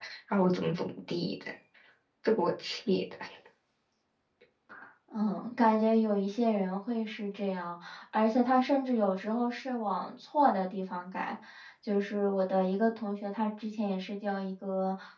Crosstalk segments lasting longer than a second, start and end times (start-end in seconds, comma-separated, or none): none